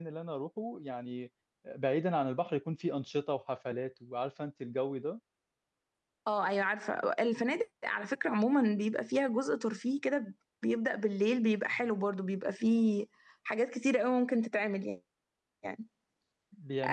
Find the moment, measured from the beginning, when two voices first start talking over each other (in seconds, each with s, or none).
none